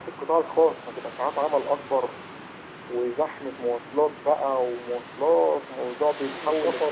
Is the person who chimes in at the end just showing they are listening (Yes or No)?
No